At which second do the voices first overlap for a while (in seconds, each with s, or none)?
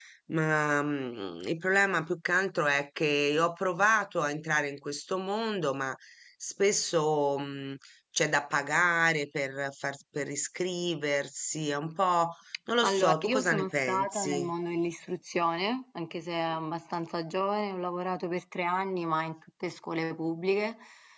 12.8 s